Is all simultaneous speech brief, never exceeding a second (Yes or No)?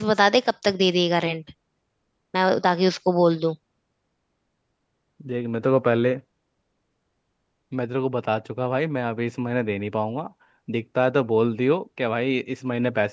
Yes